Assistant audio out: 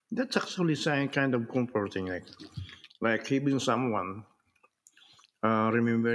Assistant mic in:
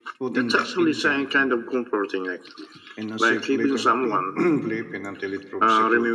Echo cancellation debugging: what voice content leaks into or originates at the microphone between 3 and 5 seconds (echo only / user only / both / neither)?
both